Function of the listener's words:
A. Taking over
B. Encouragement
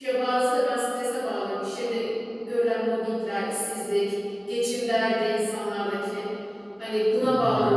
B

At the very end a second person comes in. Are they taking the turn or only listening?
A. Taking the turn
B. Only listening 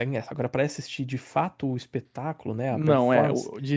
A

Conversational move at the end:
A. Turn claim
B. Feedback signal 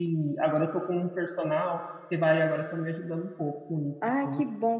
A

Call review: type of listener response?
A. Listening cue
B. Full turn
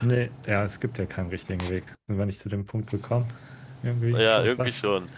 B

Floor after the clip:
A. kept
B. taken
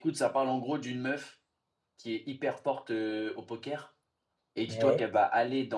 A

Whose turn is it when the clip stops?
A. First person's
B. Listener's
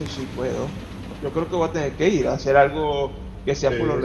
B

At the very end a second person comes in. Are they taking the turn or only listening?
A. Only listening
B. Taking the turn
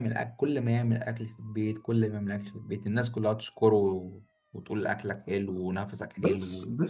B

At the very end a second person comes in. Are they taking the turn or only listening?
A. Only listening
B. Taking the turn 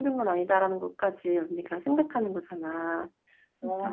B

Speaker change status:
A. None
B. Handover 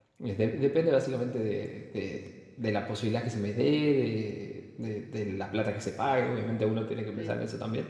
A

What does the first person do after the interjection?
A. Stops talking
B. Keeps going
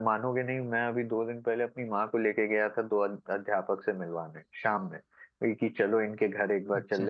B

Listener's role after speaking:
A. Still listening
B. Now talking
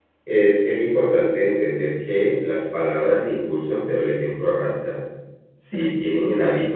A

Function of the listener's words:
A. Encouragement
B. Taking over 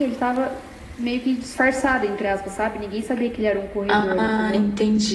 B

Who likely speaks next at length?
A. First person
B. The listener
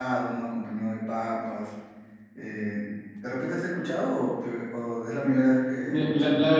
B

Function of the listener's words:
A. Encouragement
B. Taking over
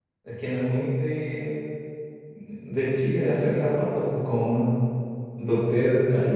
A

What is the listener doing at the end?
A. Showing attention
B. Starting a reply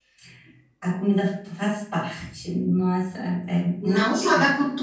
B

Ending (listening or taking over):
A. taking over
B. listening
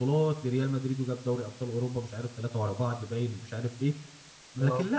B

